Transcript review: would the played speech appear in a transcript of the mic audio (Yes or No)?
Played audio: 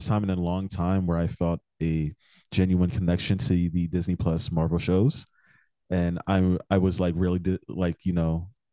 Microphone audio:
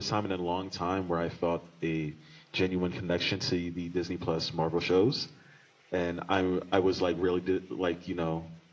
Yes